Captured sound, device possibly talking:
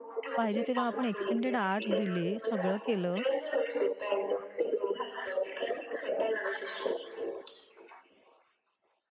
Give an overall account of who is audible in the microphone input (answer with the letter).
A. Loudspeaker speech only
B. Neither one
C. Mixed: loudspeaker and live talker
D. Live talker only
C